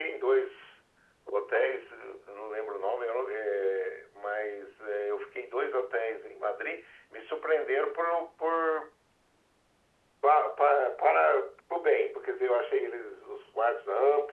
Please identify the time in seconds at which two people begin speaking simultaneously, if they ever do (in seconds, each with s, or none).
none